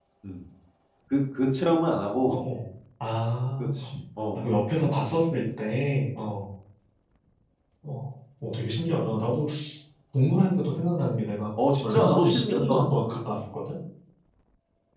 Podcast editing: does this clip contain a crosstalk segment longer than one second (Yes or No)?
Yes